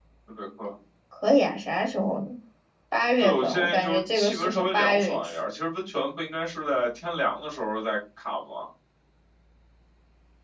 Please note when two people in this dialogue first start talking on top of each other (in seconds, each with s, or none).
3.2 s